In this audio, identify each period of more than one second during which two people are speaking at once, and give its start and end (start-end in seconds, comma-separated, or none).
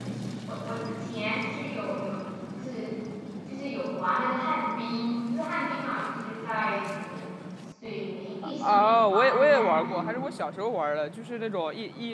8.6-10.2